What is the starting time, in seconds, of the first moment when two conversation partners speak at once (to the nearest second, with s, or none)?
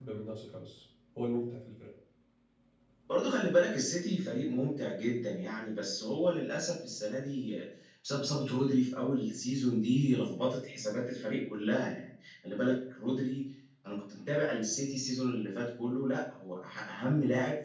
none